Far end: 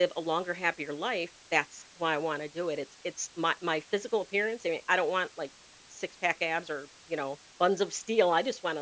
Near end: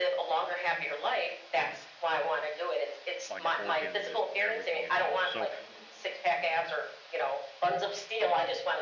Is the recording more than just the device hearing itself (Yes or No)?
Yes